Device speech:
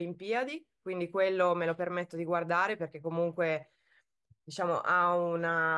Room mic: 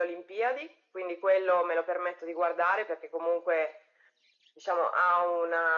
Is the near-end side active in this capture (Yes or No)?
No